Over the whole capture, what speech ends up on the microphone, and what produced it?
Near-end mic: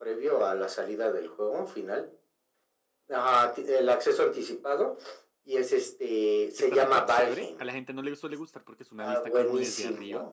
both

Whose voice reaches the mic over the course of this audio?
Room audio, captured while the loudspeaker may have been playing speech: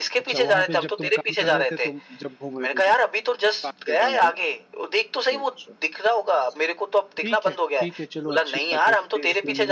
both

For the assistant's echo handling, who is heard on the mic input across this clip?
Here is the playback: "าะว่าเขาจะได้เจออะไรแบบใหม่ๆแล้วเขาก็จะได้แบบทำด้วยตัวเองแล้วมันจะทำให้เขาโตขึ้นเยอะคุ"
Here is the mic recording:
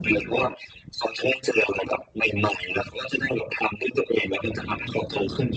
echo only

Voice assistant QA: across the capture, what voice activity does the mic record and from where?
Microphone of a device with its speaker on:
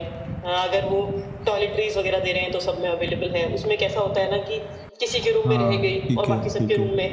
both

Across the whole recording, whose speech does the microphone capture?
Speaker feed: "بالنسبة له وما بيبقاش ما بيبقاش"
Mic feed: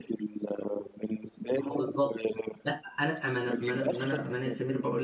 both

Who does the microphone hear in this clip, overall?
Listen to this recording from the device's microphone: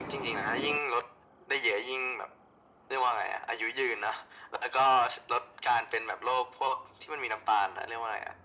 echo only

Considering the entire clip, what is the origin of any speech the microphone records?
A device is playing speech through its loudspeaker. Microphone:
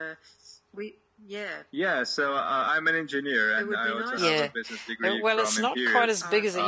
both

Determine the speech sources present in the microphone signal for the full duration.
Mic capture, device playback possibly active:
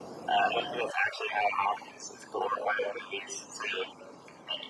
echo only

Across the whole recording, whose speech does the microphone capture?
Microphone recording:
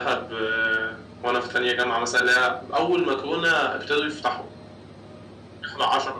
echo only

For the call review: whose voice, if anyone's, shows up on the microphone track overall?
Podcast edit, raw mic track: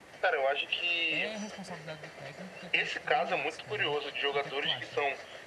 both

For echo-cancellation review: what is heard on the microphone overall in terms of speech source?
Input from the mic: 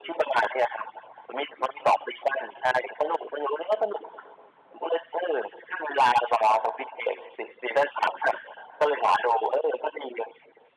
echo only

